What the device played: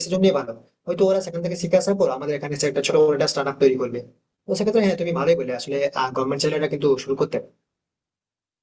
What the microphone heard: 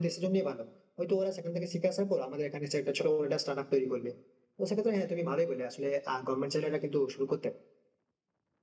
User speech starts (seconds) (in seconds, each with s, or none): none